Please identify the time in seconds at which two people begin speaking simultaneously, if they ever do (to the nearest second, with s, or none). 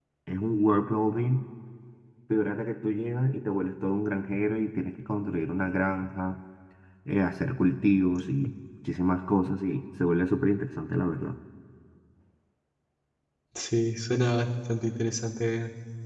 none